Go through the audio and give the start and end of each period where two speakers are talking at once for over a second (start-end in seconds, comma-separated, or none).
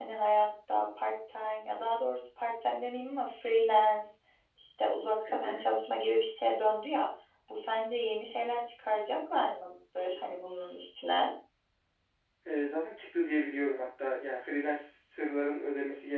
none